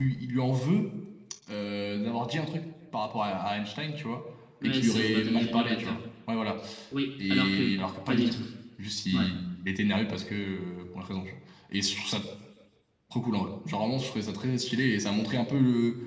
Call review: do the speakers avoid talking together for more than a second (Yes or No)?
No